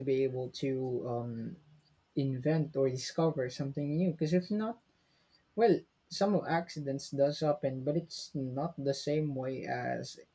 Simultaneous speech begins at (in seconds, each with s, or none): none